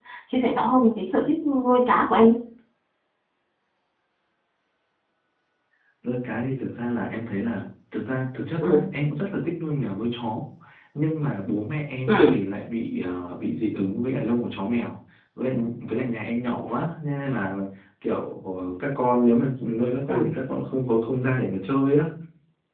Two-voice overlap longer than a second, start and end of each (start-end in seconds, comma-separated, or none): none